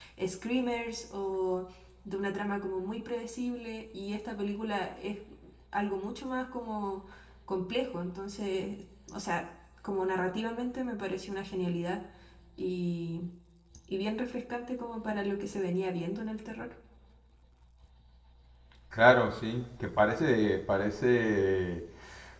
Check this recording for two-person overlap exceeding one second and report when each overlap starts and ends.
none

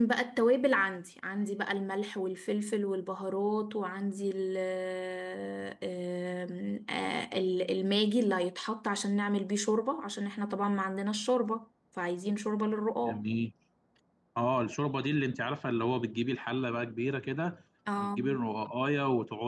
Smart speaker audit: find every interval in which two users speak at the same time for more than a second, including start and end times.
none

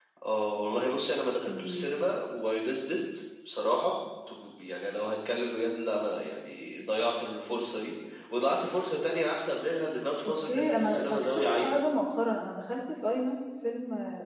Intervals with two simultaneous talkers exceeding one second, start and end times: 10.2-11.8

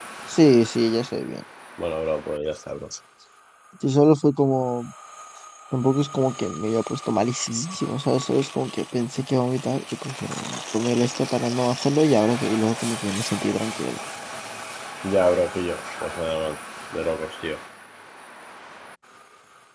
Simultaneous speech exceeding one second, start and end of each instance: none

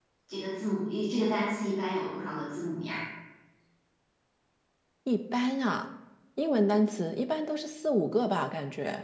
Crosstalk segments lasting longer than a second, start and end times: none

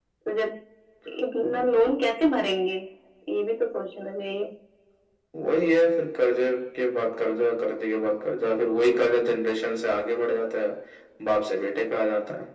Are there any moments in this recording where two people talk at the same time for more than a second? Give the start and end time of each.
none

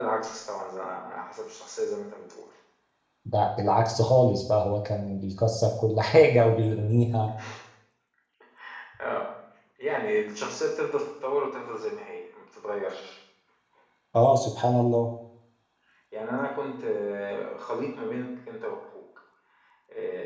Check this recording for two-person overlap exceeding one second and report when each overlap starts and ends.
none

